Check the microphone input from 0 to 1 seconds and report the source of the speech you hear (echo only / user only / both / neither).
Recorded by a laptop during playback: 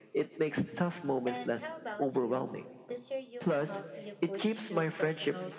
echo only